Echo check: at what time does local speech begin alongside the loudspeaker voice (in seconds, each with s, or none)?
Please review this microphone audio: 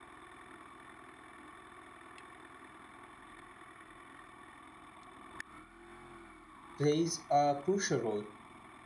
6.8 s